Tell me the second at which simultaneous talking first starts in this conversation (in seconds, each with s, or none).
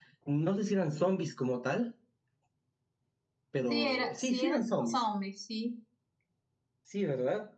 3.7 s